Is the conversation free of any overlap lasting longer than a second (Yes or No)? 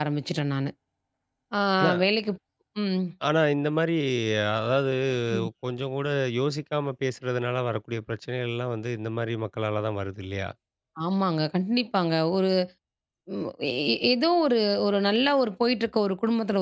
Yes